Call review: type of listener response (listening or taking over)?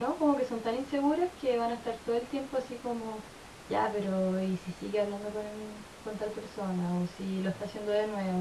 listening